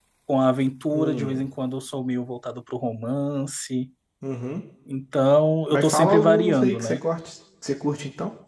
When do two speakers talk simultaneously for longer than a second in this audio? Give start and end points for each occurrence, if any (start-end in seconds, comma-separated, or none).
5.7-7.0